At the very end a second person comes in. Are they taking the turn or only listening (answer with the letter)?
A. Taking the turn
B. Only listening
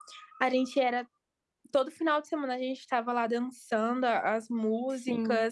A